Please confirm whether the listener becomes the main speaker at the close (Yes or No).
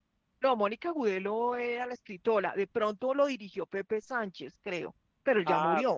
Yes